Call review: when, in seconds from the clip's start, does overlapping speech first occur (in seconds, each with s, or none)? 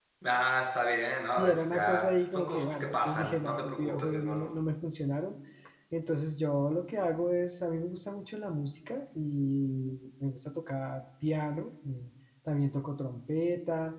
1.4 s